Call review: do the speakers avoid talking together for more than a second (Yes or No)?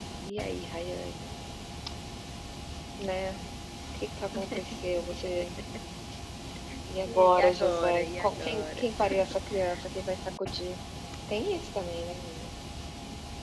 No